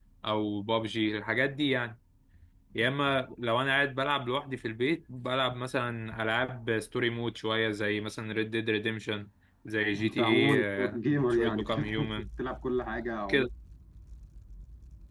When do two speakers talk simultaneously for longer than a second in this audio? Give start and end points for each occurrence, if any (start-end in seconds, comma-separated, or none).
10.0-12.1